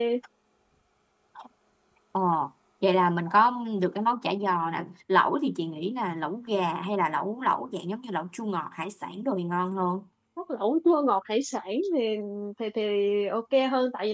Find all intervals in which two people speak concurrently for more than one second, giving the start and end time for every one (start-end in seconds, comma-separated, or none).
none